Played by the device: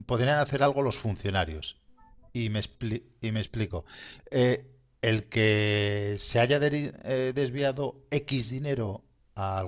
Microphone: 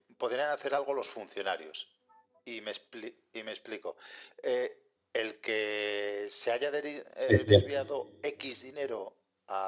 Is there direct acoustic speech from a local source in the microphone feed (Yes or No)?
Yes